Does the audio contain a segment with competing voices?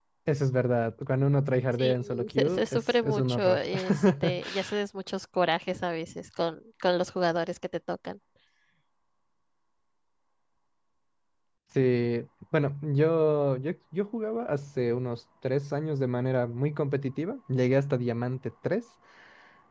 Yes, from 1.8 s

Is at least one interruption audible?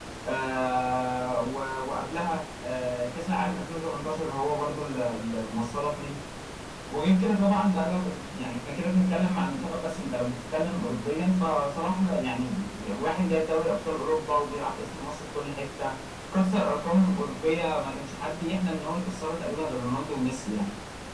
No

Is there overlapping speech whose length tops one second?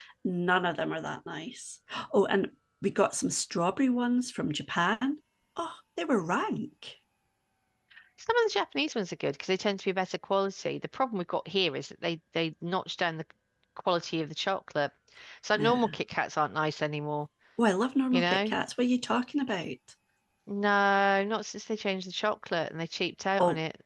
No

